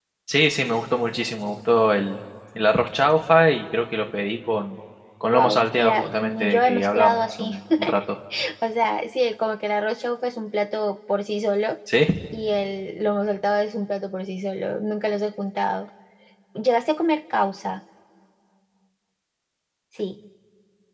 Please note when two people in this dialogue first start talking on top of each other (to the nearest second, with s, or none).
5 s